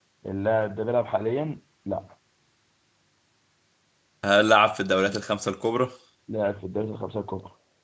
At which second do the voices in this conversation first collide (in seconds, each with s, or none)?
none